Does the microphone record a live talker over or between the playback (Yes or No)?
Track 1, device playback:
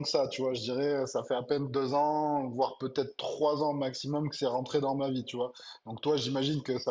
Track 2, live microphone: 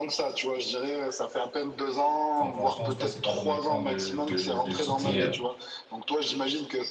Yes